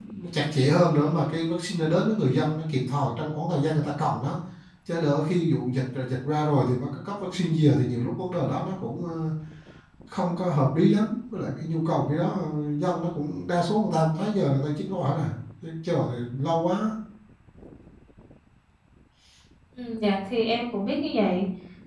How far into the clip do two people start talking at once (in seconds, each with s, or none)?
none